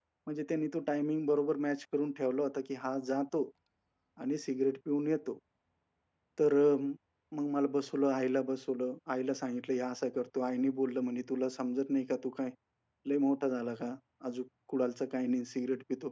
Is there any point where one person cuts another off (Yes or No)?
No